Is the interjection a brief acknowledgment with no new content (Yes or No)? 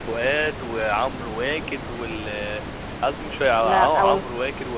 Yes